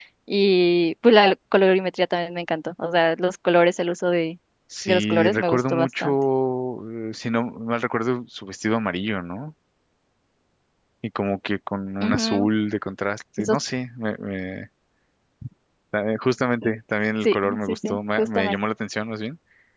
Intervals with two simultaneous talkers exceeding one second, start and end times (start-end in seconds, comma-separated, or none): 4.8-6.1, 17.2-18.6